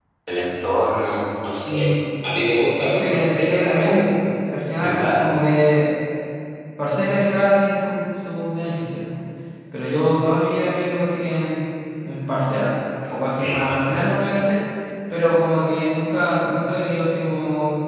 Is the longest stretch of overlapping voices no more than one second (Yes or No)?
No